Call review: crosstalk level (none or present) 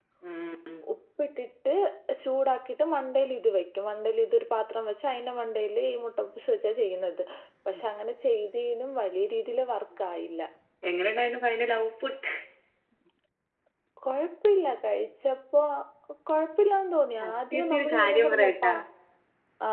present